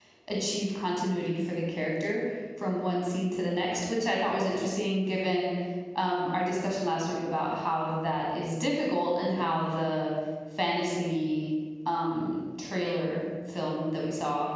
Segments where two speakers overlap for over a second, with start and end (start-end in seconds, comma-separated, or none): none